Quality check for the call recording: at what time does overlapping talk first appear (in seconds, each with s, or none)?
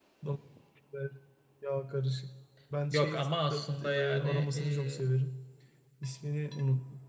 2.9 s